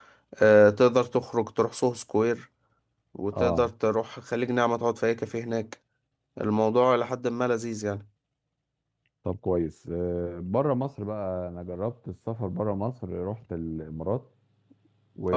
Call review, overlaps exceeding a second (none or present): none